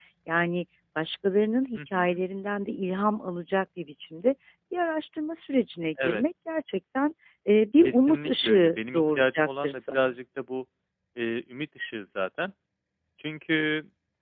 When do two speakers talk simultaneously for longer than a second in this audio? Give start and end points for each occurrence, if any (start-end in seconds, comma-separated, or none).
7.8-10.1